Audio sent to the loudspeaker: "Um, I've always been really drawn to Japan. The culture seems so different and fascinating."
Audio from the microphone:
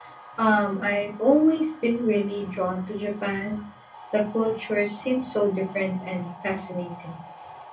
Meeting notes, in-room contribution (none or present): none